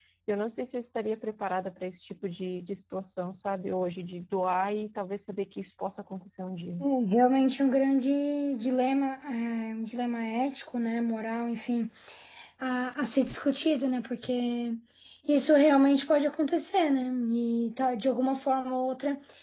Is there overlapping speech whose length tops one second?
No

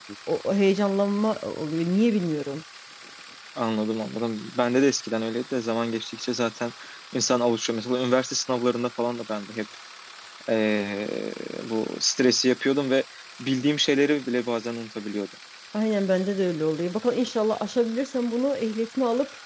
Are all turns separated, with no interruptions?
Yes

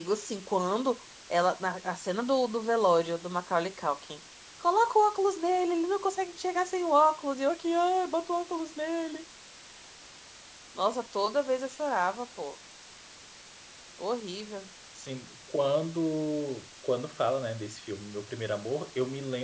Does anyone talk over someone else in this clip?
No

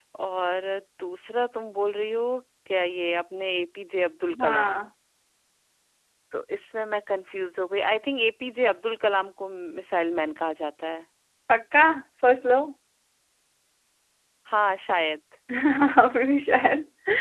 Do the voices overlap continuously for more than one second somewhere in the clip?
No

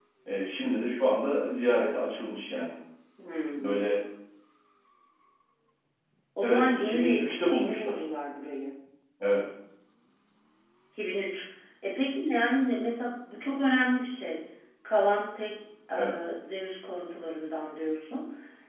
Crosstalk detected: Yes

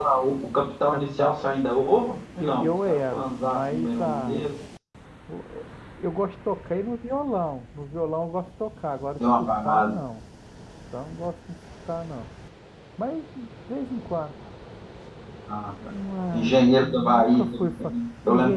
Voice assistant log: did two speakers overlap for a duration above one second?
Yes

